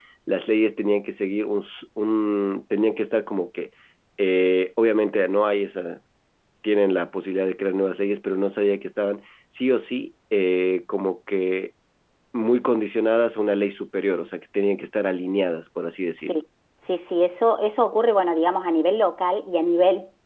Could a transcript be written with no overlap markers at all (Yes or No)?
Yes